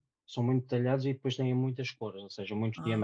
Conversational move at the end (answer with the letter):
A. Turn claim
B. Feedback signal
B